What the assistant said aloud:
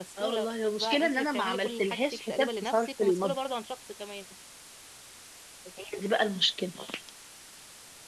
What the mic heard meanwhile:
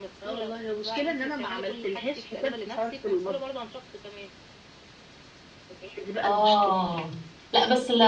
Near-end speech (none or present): present